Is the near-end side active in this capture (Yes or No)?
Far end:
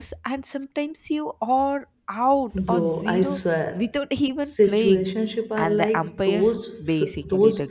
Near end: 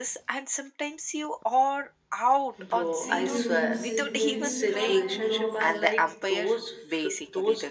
Yes